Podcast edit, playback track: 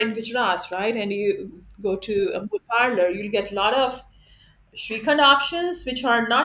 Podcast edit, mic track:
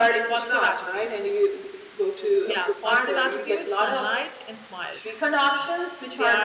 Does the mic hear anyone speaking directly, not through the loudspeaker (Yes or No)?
Yes